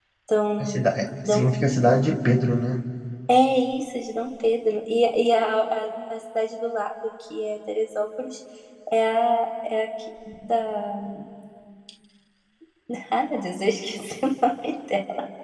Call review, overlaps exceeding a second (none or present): none